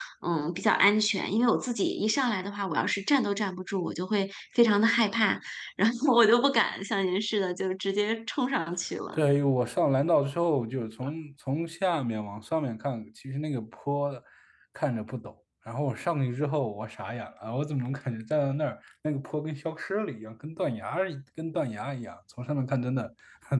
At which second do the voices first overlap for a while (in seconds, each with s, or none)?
none